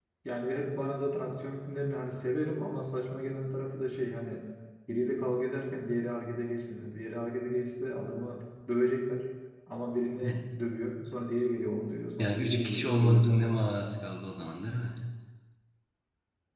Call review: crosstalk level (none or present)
present